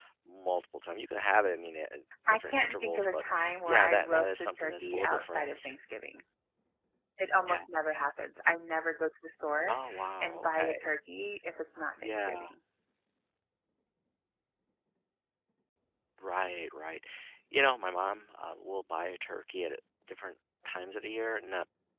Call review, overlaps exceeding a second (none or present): present